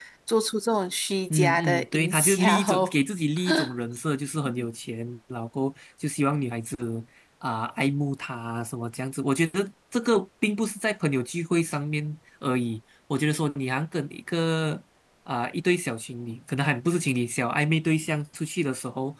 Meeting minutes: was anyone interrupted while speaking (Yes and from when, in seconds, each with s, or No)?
Yes, from 1.3 s